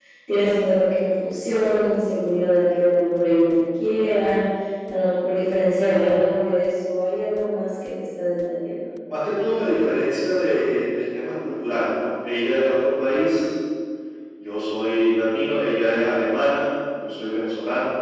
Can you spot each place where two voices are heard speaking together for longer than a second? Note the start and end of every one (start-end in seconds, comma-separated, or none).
none